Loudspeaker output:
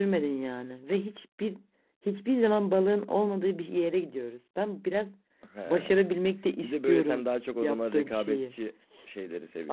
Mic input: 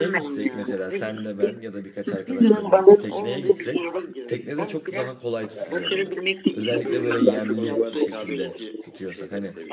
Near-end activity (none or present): present